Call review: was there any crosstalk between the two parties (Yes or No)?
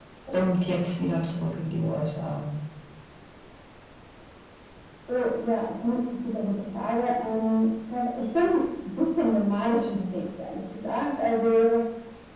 No